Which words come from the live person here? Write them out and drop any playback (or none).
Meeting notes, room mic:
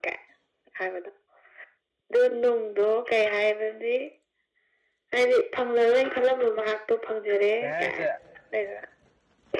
ꯀꯩ ꯍꯥꯏꯔꯤꯁꯦ